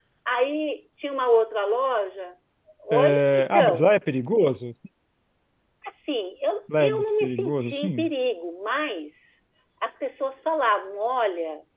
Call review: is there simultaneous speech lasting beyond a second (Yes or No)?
Yes